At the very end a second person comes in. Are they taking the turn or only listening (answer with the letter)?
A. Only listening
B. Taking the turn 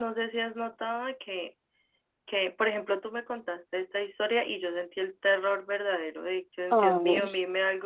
A